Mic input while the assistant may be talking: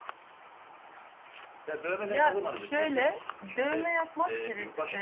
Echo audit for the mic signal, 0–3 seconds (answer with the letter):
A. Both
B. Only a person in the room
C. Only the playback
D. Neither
A